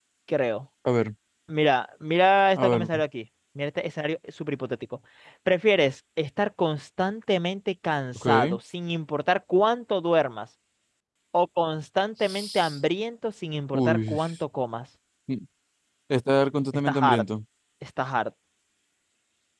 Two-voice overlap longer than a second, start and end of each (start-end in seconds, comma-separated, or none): none